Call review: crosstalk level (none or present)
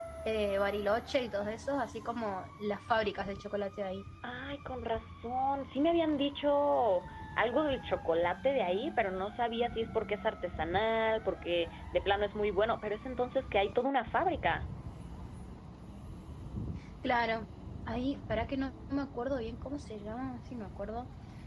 none